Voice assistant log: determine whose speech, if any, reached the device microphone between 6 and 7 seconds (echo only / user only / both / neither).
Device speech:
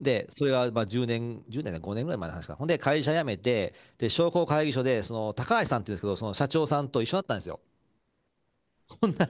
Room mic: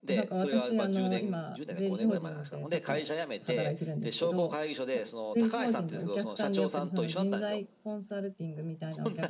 both